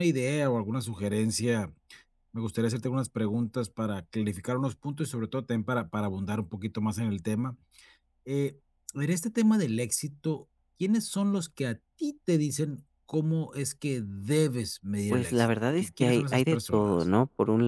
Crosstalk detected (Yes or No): Yes